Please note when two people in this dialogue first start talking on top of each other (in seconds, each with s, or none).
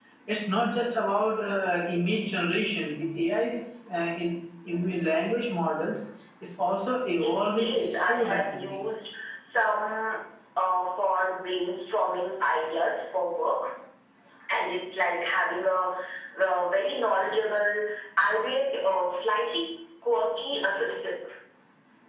7.2 s